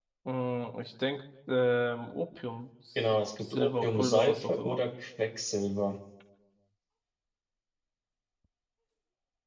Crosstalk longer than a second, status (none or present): present